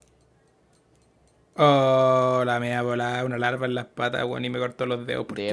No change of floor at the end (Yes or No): Yes